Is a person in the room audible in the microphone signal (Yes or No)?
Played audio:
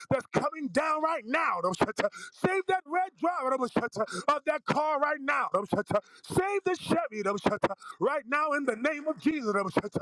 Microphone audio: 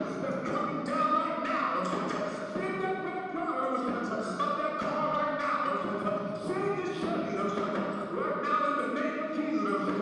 No